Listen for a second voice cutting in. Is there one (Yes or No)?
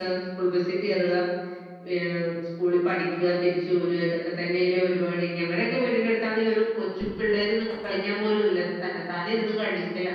No